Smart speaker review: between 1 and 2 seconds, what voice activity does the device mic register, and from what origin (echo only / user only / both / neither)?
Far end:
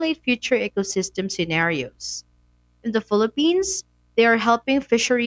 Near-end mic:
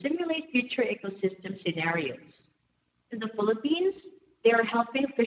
echo only